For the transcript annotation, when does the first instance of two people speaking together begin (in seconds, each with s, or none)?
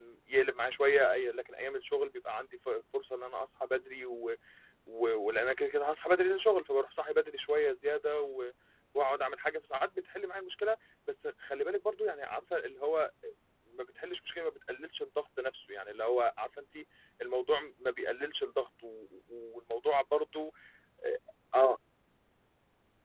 none